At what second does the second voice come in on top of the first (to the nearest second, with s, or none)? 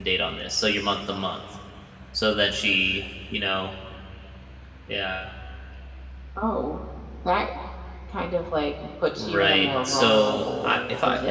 9 s